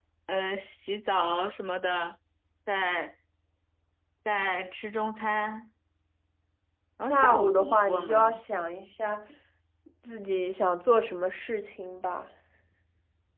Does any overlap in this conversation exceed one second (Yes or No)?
Yes